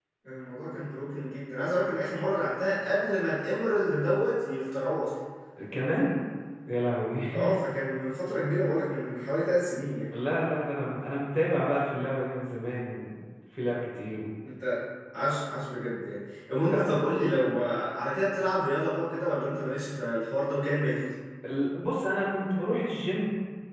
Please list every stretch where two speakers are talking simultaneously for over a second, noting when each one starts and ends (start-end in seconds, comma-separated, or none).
none